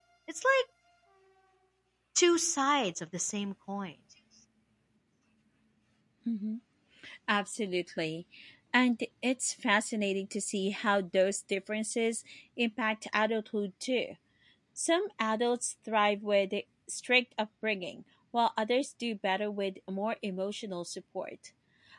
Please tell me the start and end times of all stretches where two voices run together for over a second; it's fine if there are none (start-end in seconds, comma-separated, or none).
none